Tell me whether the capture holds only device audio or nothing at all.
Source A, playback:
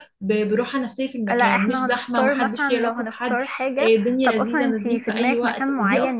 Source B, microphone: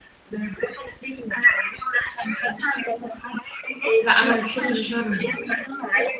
No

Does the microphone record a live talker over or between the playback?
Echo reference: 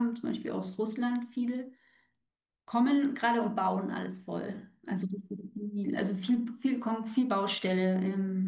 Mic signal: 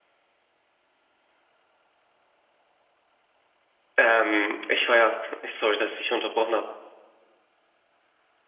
Yes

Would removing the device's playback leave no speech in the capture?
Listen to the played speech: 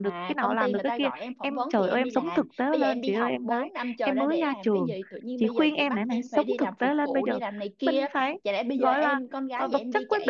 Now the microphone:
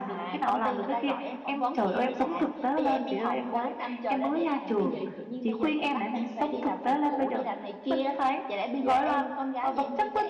Yes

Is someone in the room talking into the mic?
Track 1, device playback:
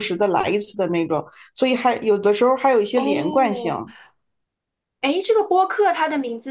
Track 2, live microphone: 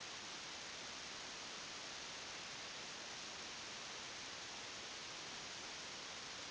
No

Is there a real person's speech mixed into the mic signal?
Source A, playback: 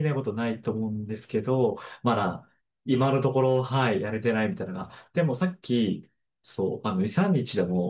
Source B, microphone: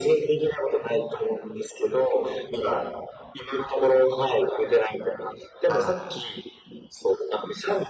Yes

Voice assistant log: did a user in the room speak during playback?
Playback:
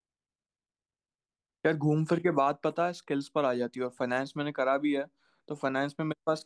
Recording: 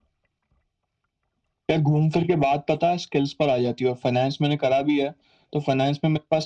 No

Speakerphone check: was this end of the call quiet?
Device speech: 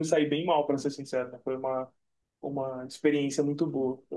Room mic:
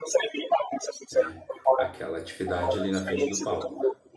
No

